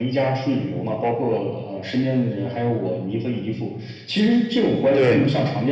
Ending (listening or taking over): listening